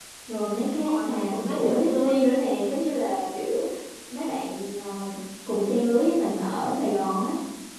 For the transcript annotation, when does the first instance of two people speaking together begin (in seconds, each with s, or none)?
0.6 s